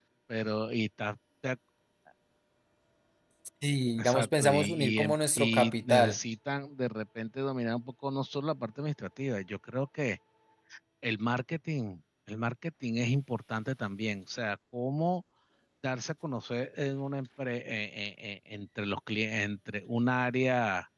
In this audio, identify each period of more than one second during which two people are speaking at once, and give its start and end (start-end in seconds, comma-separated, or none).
4.0-6.2